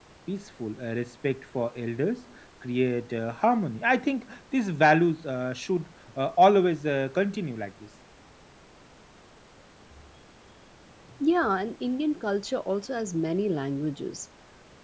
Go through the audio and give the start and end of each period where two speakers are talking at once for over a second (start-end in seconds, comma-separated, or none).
none